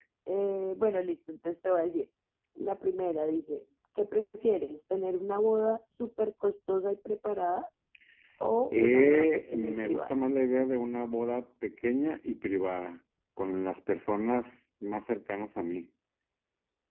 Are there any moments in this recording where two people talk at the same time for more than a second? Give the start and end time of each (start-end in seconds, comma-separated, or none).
8.7-10.1